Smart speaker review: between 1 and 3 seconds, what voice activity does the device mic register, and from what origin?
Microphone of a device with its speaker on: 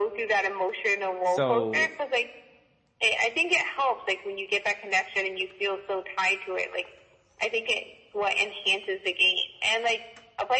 both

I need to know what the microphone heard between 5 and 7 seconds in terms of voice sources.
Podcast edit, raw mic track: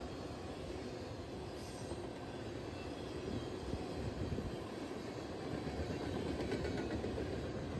neither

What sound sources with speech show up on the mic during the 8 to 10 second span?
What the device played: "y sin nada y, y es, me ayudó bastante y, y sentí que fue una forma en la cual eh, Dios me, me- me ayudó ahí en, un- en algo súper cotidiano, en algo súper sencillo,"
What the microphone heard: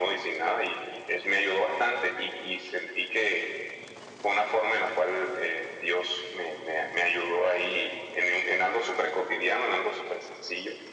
echo only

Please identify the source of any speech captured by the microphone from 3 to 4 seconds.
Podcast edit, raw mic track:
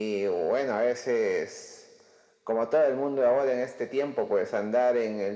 echo only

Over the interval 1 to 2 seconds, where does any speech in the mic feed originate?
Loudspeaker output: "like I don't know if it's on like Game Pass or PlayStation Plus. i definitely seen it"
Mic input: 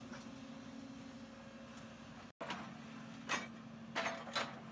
neither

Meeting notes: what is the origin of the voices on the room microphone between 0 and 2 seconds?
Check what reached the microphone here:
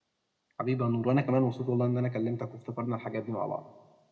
user only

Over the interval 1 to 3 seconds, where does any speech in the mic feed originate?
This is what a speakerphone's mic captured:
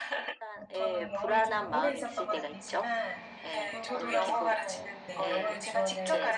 both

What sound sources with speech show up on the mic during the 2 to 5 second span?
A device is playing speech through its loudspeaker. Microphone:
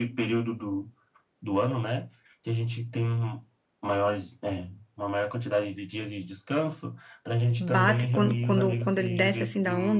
echo only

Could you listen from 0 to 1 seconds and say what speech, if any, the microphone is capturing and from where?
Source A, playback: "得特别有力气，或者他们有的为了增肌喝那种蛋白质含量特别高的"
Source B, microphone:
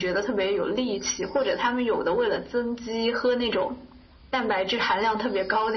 echo only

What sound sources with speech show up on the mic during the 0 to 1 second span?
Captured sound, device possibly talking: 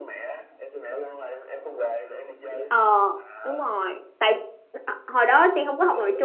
echo only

